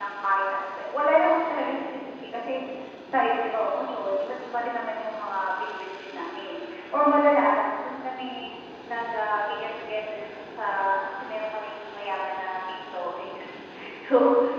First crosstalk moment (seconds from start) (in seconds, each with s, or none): none